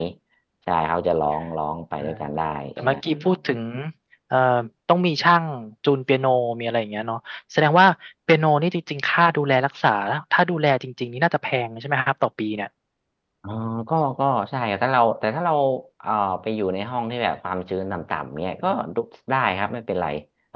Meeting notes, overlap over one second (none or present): none